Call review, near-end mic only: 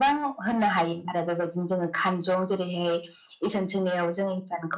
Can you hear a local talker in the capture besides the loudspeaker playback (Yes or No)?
No